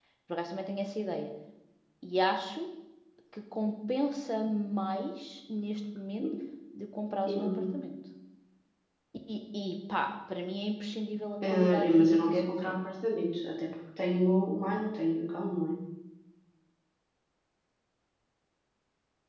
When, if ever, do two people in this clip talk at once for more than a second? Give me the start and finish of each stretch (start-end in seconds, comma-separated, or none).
11.4-12.8